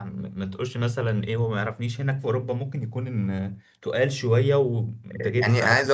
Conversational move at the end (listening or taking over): taking over